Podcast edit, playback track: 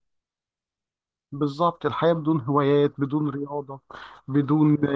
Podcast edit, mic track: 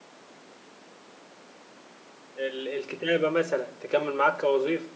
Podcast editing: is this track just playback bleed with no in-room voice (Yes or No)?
No